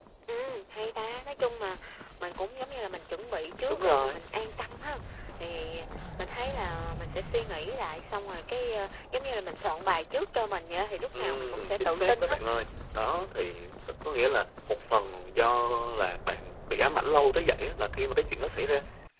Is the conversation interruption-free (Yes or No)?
No